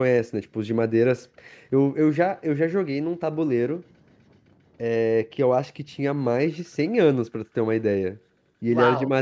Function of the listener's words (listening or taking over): listening